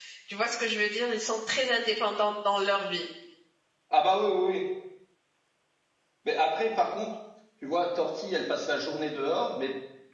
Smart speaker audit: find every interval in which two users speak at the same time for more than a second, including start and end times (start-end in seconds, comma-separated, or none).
none